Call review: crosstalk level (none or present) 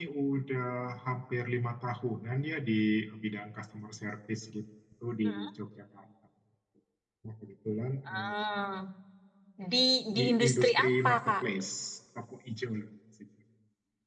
present